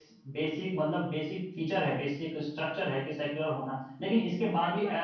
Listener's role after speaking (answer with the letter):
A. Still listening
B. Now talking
A